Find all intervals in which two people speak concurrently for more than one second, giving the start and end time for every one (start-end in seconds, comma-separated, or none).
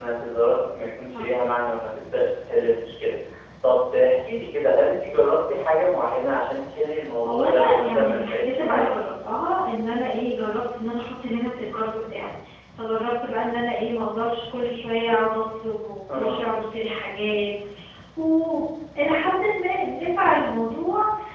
7.3-8.8